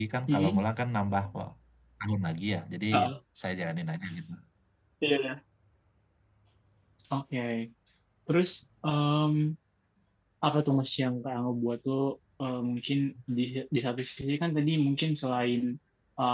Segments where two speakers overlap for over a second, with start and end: none

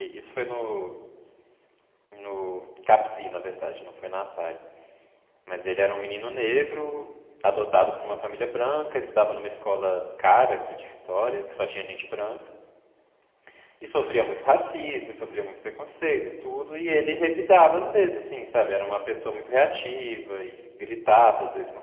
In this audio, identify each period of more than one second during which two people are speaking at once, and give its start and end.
none

